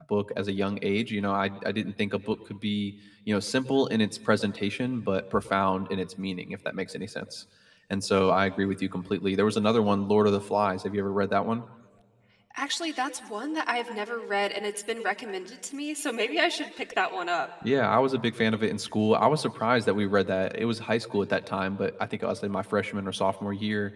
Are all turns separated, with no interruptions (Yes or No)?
Yes